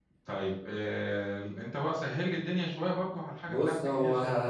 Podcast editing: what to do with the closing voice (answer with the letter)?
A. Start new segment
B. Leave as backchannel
A